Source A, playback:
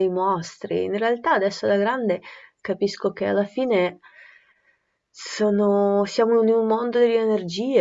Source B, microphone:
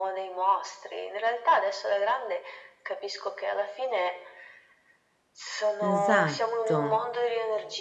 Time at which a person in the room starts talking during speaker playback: 5.8 s

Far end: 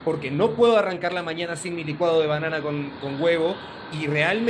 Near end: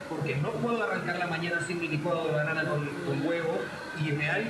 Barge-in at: 2.6 s

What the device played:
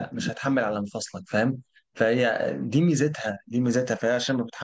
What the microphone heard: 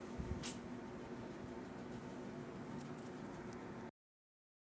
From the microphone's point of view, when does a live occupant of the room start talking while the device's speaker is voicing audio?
none

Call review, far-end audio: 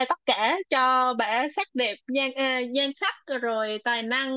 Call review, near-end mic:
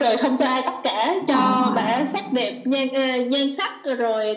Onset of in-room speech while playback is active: 1.2 s

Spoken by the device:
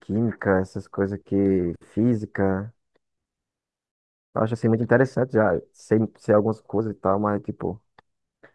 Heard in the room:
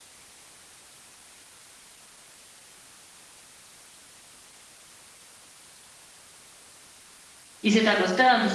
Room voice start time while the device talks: 7.6 s

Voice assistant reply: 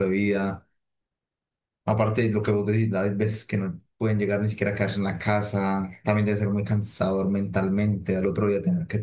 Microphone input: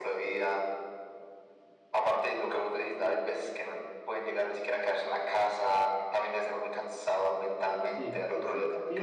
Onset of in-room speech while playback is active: 7.8 s

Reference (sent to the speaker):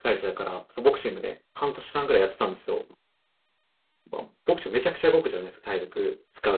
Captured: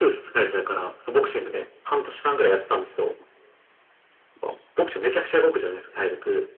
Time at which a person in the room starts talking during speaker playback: none

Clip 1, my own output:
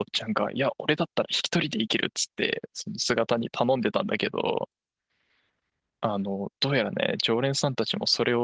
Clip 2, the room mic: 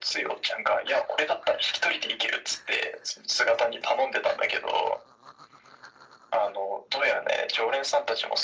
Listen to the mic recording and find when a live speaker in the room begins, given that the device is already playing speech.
none

